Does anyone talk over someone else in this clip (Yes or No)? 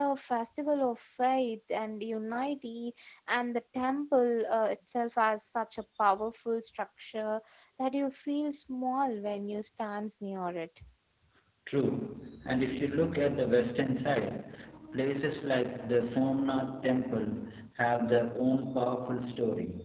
No